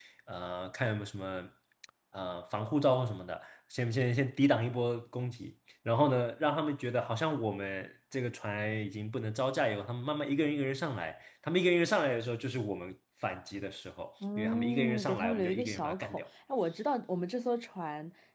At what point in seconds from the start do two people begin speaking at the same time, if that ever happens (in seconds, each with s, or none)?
14.2 s